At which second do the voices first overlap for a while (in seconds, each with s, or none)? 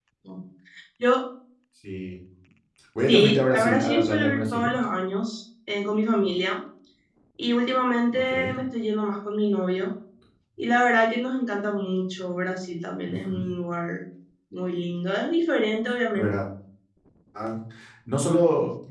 3.1 s